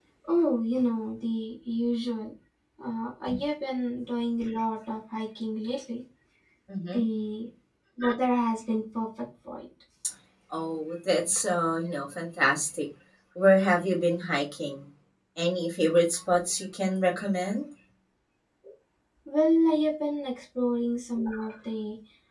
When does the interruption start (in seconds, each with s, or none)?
none